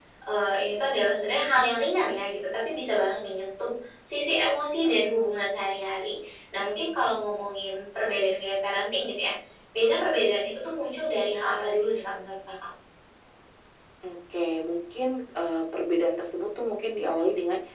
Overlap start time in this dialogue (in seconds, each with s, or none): none